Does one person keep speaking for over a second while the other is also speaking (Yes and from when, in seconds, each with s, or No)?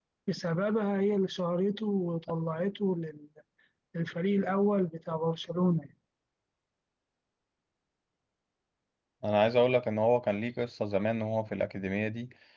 No